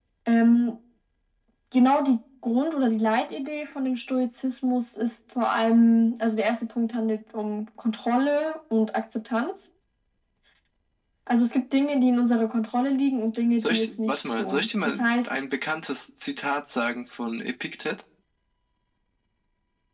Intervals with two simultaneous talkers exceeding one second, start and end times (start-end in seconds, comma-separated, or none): 13.6-15.3